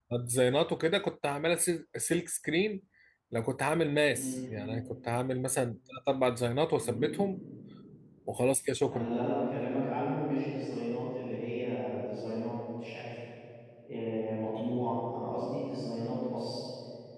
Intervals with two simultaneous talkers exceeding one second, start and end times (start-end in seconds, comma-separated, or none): none